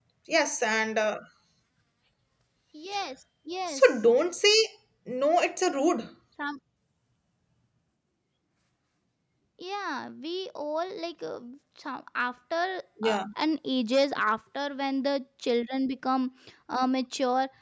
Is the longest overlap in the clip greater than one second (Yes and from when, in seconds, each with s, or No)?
No